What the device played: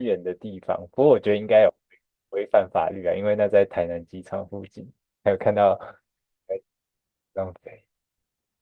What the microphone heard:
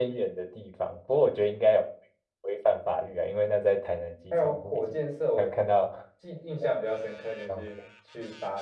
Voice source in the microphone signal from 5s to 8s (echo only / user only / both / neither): both